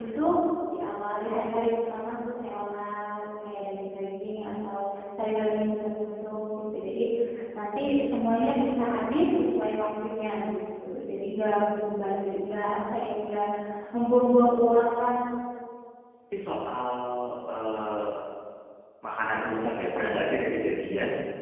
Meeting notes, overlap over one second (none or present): none